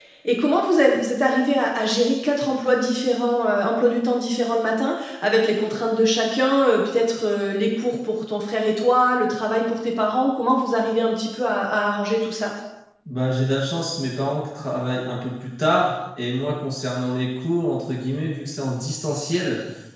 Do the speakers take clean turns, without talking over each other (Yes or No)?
Yes